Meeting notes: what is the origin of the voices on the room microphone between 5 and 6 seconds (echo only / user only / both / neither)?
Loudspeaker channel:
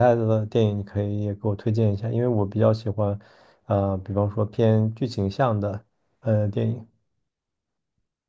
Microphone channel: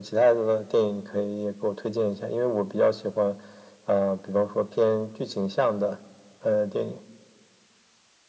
echo only